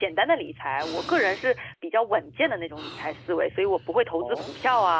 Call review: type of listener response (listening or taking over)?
listening